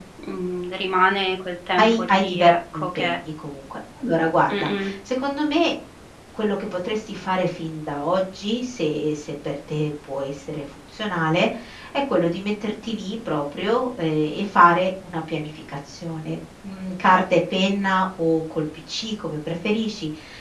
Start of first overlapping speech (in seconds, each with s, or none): 1.8 s